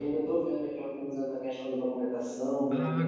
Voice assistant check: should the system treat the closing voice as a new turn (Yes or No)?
Yes